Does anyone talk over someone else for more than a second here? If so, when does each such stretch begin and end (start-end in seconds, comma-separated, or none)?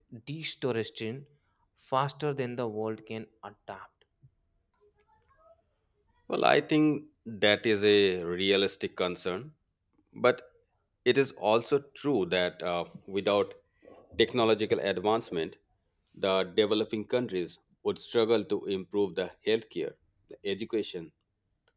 none